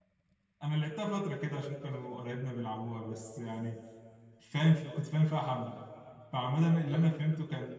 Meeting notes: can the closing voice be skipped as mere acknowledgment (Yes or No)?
Yes